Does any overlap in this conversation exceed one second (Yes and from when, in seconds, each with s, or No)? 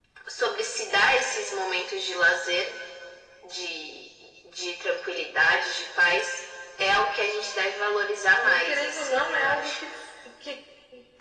Yes, from 8.4 s